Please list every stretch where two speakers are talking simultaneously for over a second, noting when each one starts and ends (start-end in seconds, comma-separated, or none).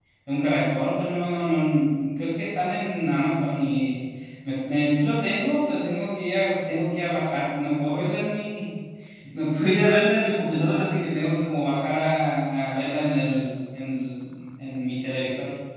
none